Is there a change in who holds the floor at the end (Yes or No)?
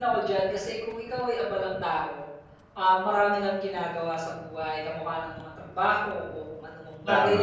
No